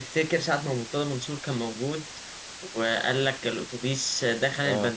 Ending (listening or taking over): listening